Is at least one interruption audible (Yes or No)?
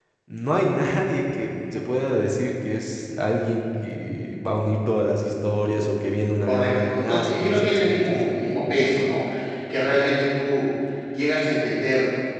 Yes